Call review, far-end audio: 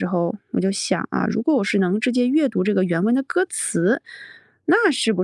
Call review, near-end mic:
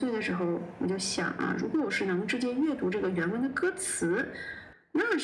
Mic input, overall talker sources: echo only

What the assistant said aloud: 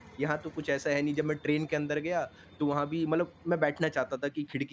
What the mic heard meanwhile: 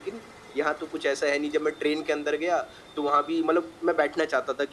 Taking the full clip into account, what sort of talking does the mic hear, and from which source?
echo only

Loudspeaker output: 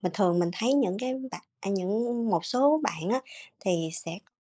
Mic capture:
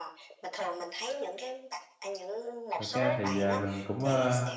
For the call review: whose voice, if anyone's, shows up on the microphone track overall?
both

